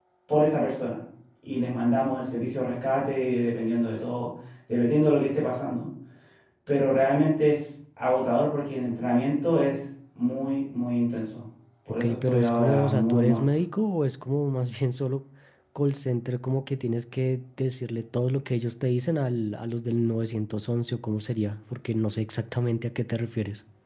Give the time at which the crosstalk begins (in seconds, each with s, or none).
12.0 s